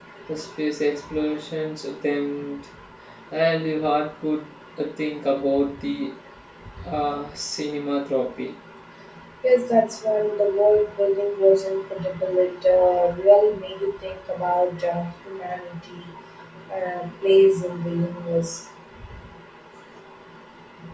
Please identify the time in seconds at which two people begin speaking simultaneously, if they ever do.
none

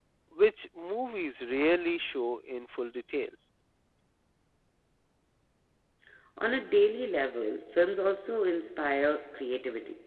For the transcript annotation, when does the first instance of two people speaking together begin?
none

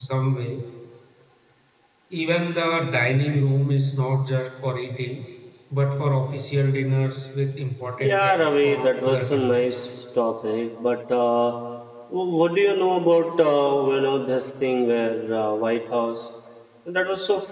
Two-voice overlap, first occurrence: 8 s

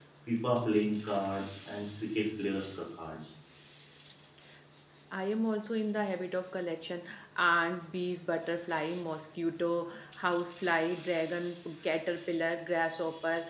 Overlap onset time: none

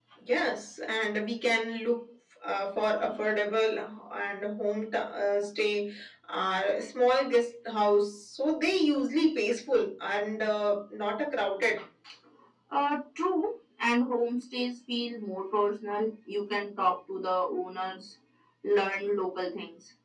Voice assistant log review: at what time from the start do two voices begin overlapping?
none

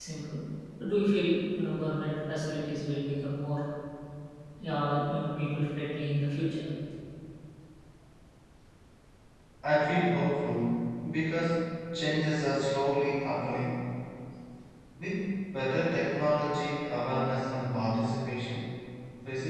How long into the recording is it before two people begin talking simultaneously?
none

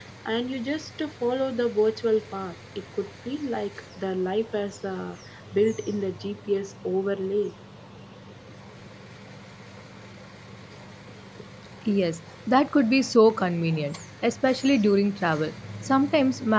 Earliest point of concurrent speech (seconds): none

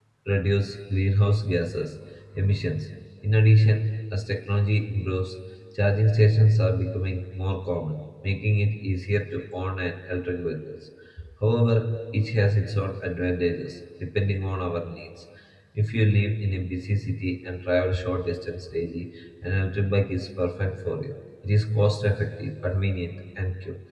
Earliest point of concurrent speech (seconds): none

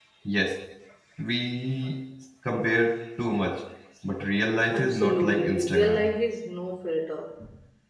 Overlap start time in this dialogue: 5 s

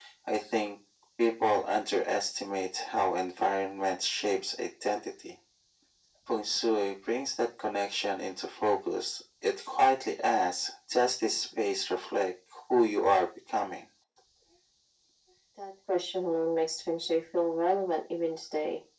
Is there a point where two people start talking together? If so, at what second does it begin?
none

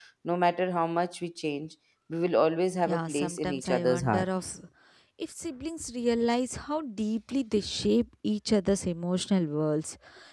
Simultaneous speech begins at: 3 s

